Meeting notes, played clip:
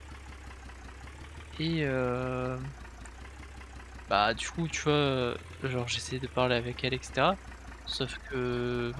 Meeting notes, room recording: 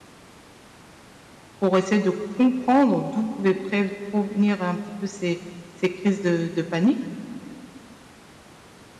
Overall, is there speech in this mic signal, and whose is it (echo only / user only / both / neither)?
user only